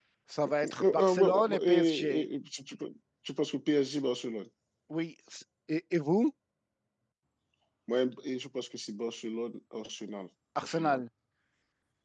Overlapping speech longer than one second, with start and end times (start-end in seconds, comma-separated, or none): 0.6-2.2